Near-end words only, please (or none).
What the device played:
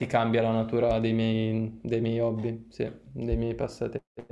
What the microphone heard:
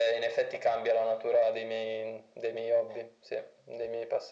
none